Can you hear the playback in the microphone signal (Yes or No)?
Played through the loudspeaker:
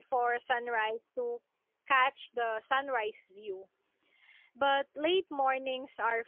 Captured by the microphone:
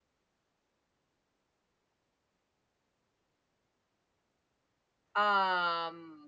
No